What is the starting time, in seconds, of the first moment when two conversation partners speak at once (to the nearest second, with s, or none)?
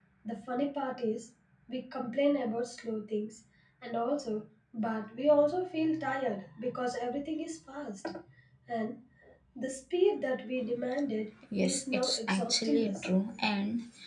12 s